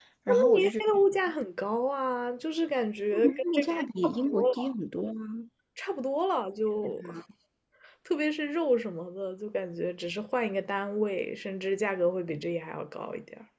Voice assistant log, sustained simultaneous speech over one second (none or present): present